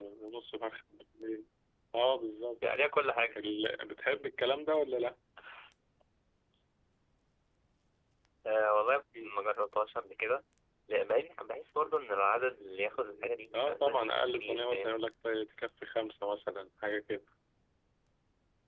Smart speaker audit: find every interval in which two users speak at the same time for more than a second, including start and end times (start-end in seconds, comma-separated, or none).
13.5-14.9